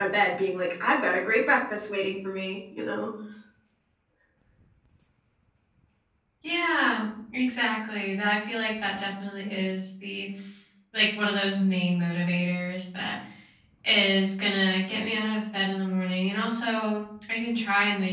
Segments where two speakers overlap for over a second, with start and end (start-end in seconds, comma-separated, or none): none